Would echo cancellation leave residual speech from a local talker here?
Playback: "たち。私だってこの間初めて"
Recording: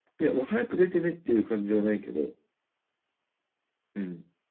Yes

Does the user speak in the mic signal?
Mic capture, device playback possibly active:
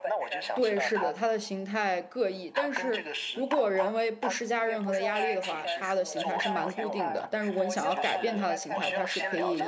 Yes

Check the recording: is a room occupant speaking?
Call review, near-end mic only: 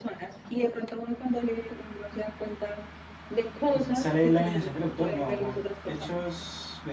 Yes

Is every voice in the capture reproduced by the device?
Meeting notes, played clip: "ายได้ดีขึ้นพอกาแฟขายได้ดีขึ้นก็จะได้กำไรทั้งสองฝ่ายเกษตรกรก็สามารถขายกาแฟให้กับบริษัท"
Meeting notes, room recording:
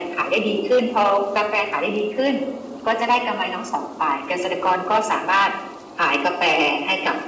Yes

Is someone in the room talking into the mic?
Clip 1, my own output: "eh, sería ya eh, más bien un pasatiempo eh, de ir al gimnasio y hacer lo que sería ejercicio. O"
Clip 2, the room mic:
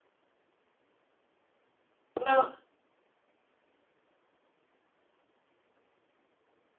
Yes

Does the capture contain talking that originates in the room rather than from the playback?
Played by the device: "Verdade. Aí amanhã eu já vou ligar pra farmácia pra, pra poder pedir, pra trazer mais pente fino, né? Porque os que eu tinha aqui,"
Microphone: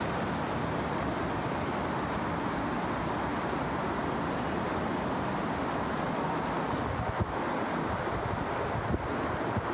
No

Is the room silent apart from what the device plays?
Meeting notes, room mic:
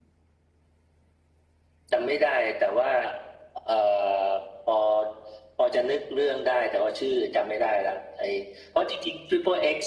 Yes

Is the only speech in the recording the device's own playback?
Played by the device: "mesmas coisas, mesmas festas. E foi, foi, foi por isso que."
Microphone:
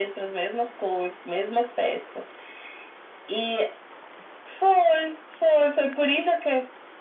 Yes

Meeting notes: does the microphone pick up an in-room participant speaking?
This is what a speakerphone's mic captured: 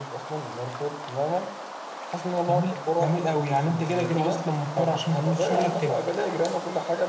No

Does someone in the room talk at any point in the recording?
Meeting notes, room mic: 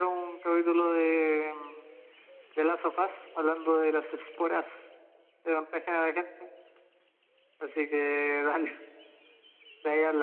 No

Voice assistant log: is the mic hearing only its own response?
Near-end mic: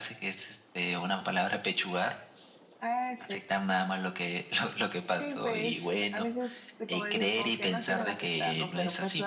Yes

